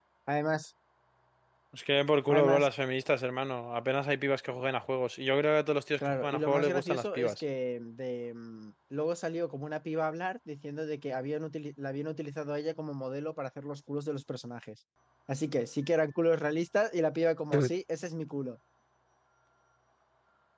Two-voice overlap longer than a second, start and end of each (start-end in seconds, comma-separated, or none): 6.0-7.4